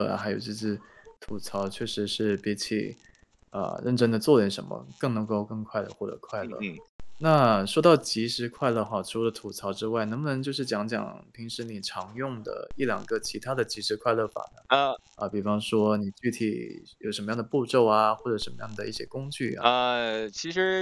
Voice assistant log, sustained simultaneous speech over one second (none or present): none